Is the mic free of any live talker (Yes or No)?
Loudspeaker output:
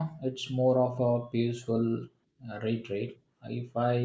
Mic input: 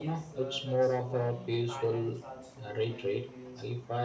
No